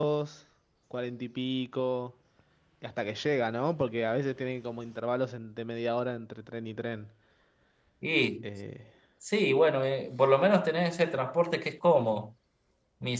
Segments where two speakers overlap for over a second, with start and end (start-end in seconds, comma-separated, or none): none